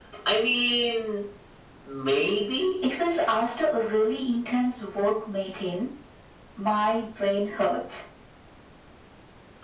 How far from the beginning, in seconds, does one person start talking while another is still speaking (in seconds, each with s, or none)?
none